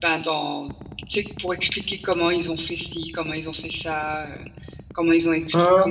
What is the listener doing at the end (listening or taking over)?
listening